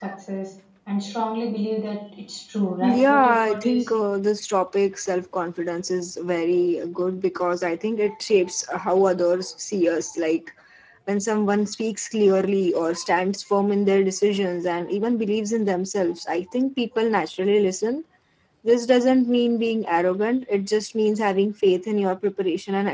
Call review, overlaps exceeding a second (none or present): present